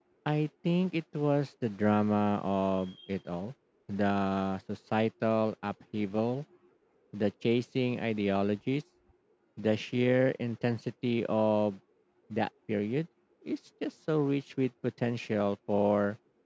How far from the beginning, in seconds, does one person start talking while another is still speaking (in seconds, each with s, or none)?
none